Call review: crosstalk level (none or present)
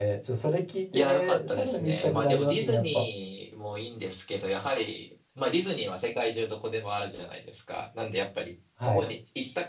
present